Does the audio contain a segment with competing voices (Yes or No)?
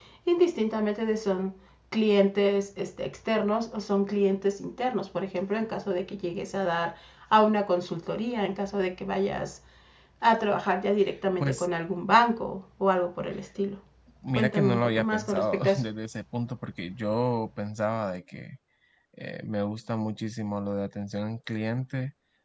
Yes